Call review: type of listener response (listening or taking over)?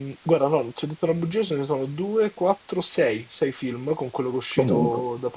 listening